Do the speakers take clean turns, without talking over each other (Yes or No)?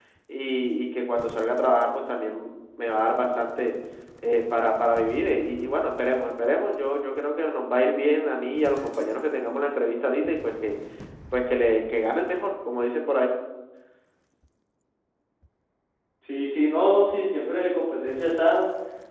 Yes